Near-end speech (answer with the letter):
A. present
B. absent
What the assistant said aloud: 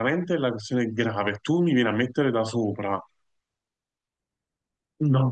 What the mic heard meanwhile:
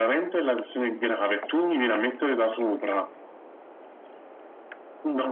B